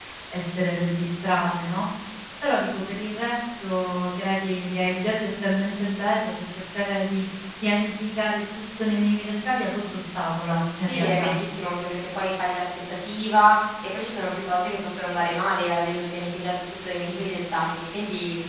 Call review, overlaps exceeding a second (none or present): none